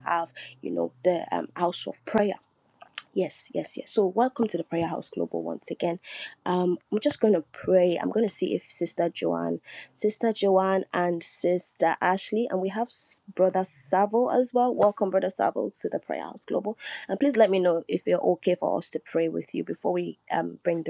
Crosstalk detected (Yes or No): No